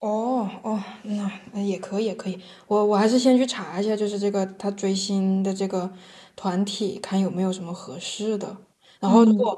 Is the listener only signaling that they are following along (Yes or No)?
Yes